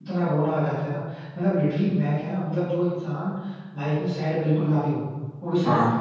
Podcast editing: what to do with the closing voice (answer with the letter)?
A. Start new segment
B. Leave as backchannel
A